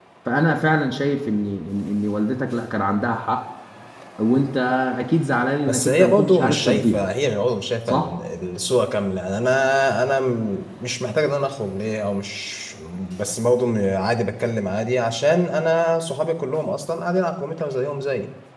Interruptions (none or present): present